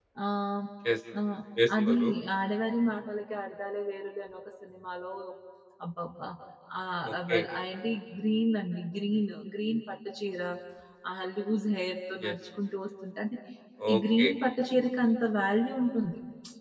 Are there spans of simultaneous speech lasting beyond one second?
No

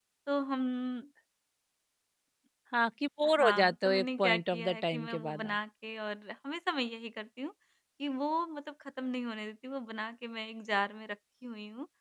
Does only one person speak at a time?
No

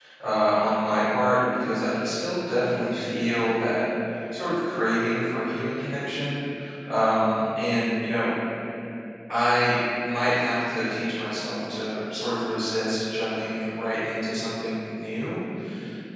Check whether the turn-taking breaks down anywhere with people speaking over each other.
No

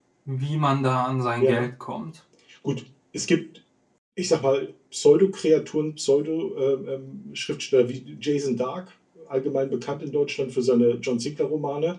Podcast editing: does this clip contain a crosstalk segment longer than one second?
No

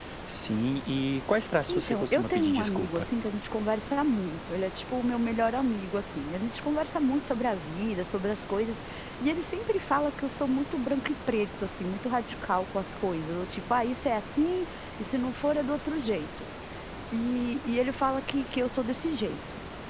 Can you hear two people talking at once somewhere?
Yes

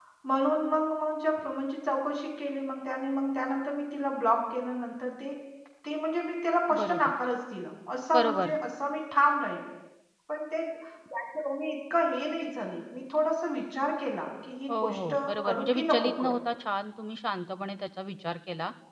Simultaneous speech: Yes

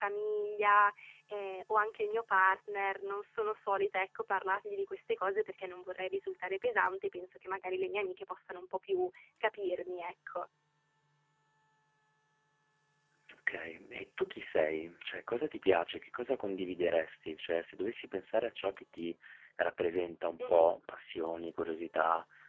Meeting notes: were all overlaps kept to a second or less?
Yes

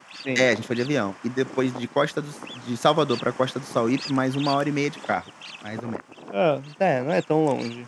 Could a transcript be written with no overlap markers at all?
Yes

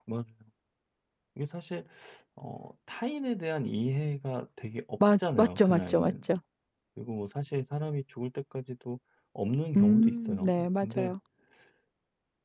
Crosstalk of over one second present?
Yes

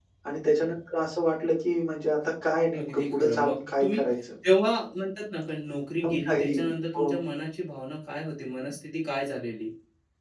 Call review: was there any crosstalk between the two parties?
Yes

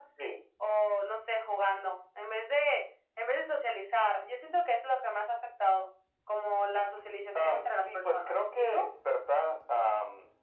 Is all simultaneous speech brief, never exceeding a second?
No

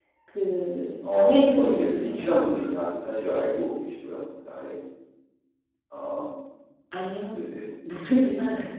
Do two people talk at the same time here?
Yes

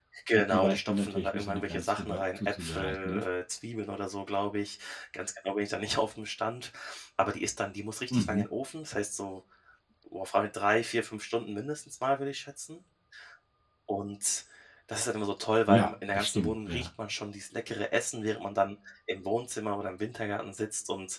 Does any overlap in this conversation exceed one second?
Yes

